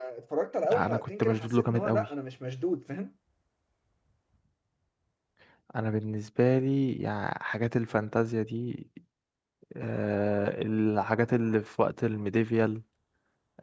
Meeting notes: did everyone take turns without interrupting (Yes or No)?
No